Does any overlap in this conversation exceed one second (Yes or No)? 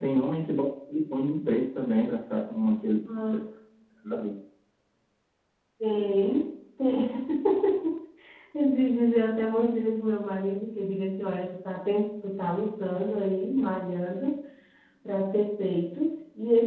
No